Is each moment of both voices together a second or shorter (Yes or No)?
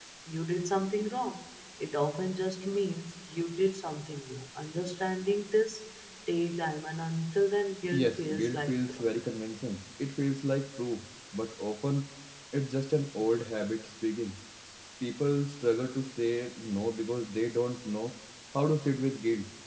No